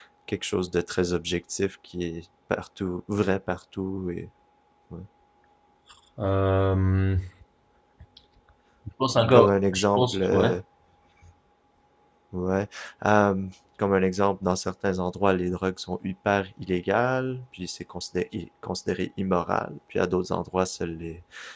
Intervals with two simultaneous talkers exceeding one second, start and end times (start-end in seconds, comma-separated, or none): 9.3-10.5